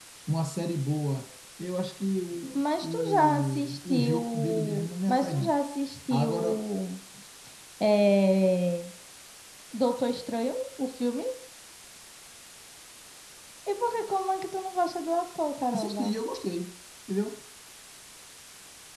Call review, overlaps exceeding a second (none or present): present